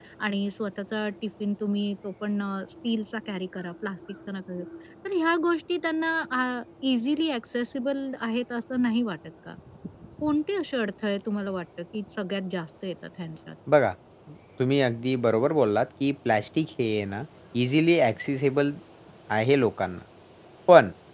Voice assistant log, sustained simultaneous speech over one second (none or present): none